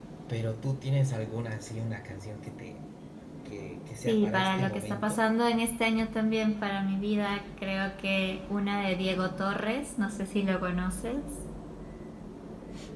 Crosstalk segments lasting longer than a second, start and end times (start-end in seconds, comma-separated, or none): 4.0-5.2